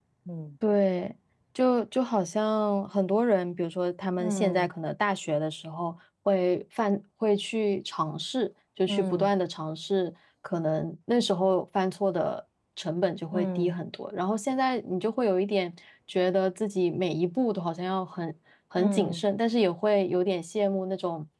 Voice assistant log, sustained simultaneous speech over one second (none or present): none